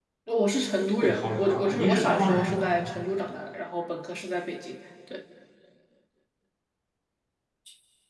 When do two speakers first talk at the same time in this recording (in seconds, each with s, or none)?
1.0 s